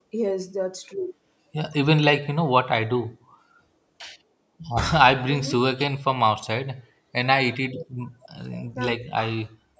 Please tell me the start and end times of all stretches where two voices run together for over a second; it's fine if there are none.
none

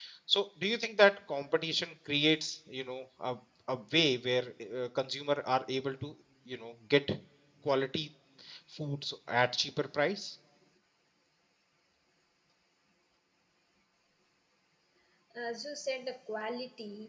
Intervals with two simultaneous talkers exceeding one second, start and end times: none

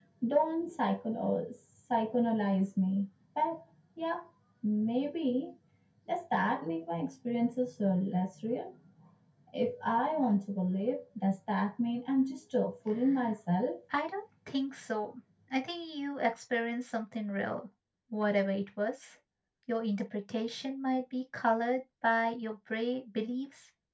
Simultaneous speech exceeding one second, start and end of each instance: none

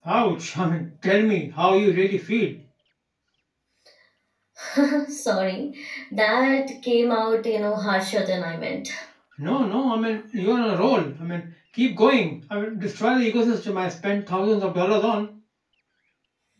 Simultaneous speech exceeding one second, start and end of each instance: none

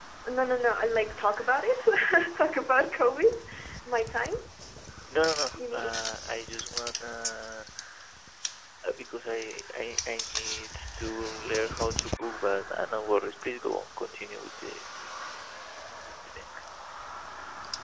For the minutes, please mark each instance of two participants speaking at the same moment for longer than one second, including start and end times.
none

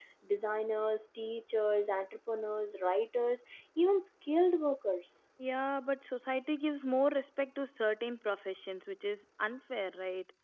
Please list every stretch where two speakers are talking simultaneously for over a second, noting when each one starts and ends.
none

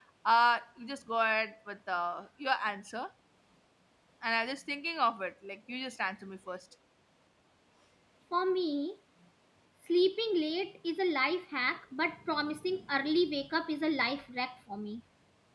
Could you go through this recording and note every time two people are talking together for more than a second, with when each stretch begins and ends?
none

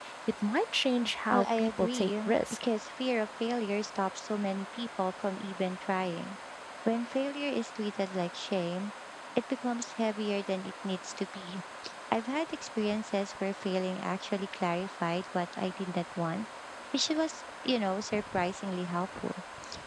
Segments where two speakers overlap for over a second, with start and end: 1.3-2.6

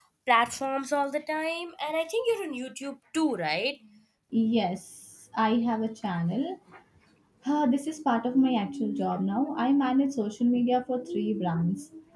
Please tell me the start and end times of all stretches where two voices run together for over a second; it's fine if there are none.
none

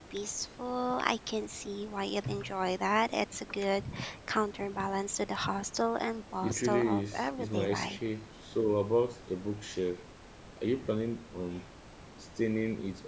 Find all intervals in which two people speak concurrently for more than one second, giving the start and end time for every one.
6.4-8.0

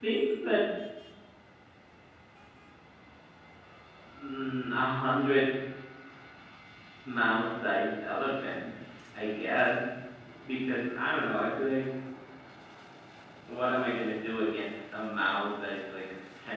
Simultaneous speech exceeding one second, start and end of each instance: none

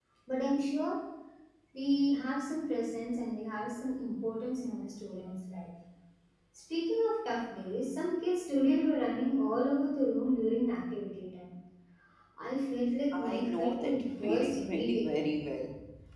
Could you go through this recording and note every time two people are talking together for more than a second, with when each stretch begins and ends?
13.1-15.3

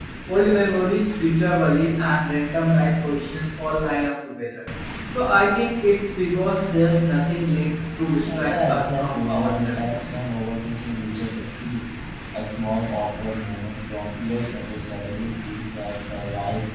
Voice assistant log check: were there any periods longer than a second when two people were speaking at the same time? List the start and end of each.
8.3-9.9

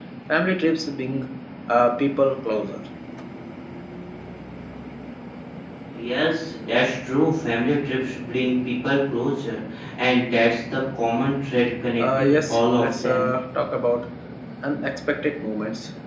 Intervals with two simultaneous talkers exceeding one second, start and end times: 12.0-13.3

